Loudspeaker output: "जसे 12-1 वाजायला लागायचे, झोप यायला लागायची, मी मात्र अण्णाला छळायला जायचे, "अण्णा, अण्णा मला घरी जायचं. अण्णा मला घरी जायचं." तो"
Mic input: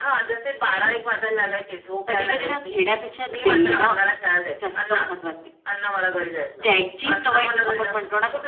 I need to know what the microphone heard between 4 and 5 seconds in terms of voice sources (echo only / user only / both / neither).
both